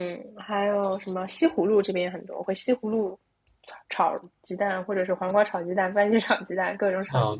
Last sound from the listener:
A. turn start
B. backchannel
A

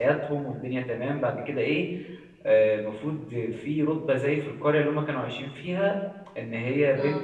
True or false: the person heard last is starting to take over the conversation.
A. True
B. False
B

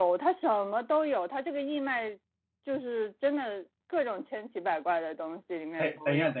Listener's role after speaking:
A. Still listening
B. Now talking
B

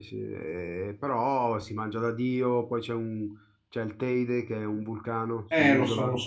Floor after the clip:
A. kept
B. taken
B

